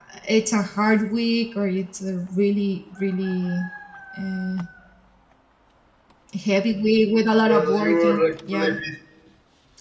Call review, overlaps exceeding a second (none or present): present